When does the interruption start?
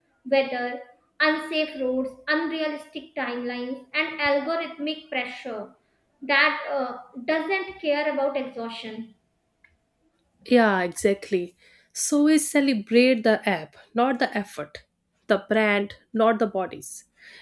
none

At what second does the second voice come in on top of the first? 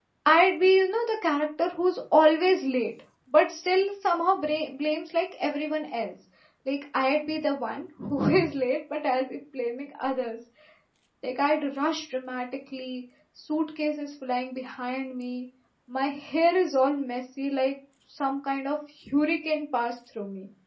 none

